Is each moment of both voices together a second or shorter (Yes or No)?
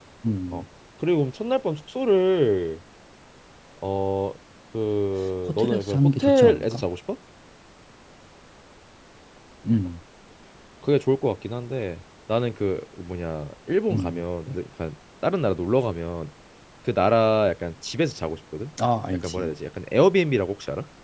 No